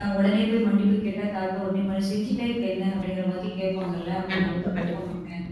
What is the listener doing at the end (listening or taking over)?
listening